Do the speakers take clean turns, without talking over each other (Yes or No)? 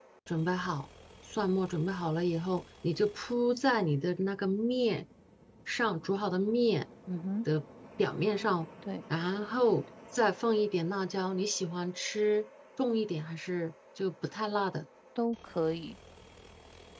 Yes